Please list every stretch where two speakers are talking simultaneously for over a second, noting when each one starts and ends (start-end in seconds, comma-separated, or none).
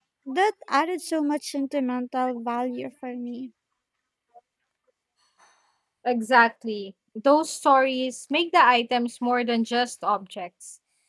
none